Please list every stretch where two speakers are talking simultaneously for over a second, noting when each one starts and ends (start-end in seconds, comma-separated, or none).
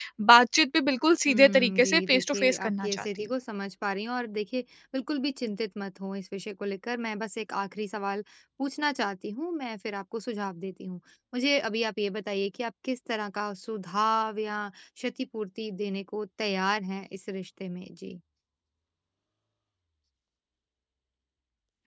1.3-3.1